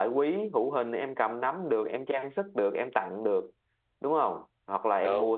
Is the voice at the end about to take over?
No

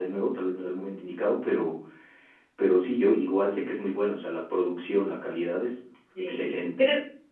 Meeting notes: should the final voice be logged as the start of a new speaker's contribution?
Yes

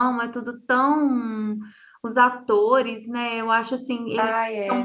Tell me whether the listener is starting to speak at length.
No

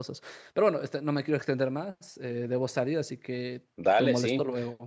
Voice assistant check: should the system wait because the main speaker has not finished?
No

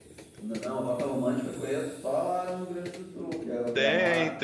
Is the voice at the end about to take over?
Yes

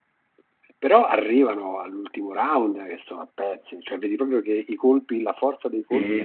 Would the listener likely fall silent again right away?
Yes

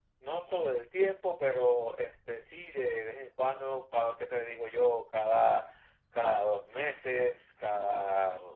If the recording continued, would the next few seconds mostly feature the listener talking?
No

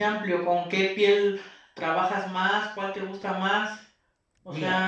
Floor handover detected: Yes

